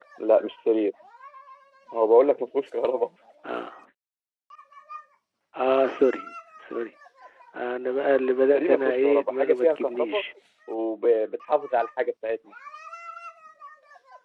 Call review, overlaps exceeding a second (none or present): present